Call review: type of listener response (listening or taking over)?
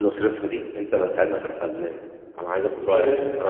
listening